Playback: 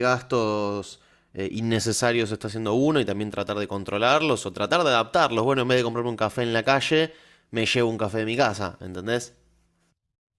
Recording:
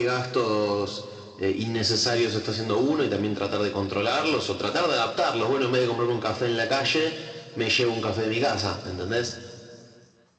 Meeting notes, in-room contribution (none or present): none